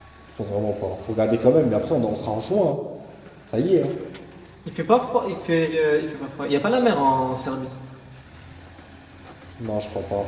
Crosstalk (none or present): none